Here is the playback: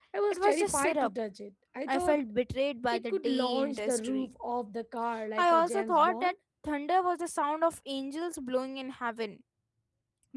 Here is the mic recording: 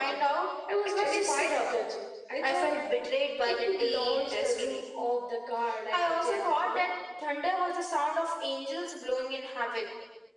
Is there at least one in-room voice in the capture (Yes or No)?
No